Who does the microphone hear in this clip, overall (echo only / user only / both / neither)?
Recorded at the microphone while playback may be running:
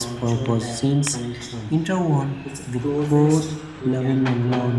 both